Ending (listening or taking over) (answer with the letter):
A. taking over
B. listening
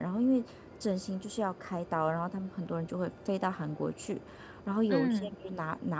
B